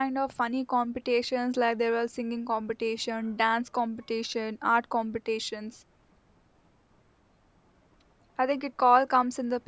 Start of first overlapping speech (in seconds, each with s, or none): none